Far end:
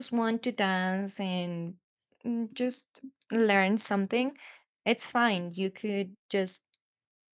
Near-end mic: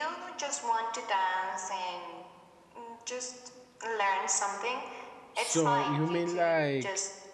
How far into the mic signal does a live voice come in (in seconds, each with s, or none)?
5.3 s